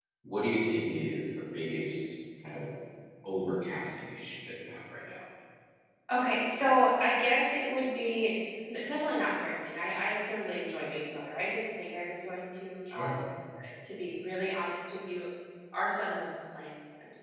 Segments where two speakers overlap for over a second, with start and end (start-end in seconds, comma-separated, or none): none